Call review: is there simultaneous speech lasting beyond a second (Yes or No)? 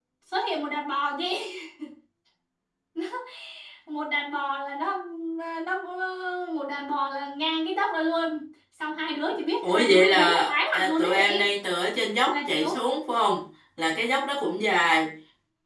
Yes